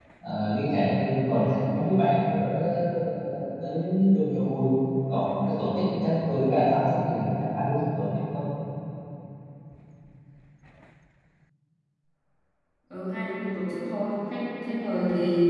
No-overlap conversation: Yes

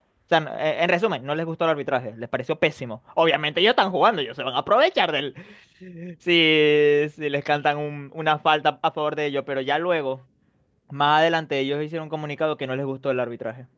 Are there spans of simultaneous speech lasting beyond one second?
No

